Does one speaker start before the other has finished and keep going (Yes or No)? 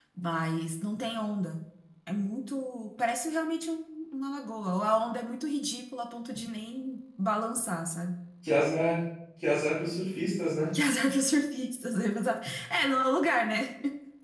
No